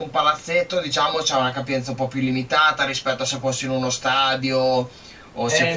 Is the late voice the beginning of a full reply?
Yes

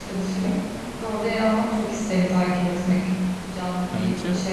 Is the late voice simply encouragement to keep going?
No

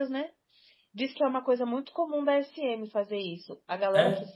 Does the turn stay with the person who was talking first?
Yes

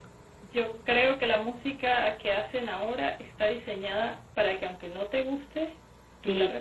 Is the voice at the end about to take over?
Yes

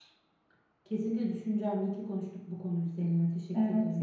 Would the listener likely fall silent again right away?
No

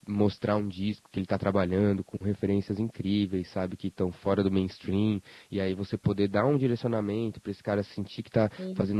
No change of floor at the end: Yes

